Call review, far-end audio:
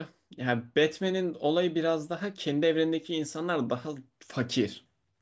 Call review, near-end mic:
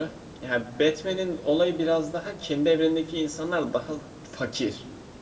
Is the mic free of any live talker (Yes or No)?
Yes